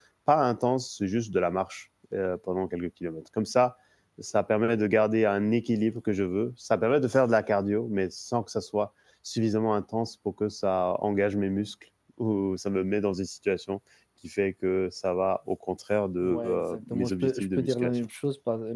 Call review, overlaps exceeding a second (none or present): present